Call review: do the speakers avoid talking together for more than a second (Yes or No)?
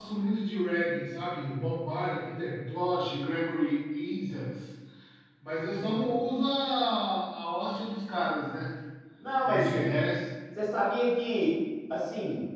Yes